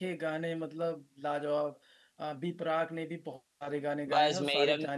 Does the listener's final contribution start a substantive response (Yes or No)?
Yes